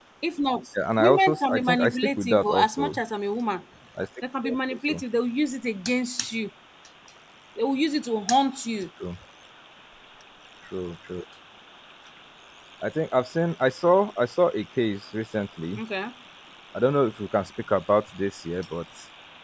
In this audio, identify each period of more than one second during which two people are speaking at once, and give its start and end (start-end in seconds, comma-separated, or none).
1.0-3.0